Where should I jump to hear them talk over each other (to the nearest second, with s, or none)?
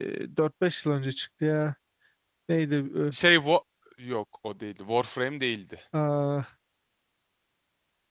none